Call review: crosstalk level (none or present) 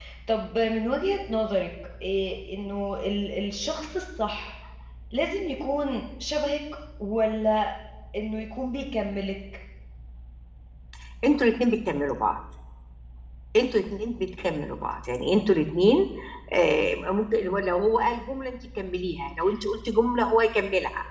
none